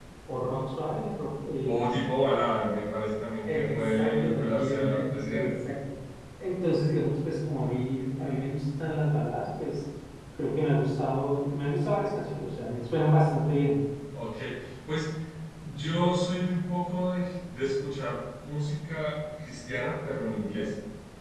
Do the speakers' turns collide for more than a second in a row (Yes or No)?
Yes